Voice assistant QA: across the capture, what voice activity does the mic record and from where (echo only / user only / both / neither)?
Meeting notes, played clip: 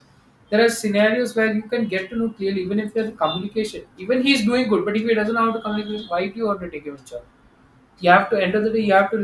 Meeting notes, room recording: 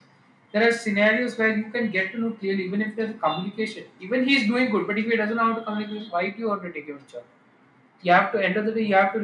echo only